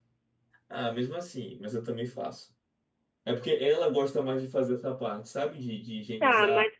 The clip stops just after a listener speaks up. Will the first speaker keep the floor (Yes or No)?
No